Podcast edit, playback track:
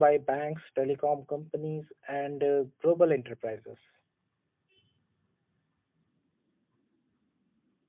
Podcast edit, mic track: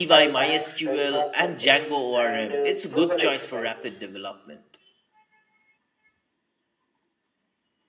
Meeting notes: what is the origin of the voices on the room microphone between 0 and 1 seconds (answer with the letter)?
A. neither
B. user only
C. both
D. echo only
C